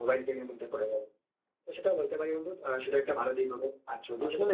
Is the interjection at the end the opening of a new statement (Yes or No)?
Yes